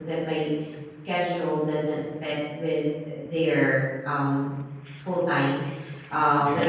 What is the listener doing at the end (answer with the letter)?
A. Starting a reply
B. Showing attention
B